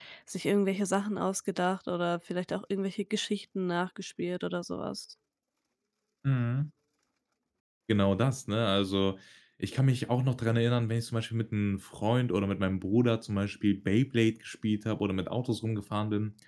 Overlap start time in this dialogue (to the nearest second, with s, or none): none